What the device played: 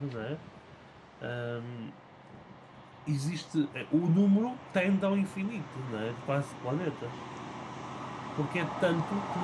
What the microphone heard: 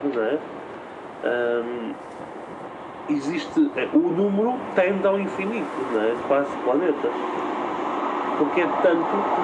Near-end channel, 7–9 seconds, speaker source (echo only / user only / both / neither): echo only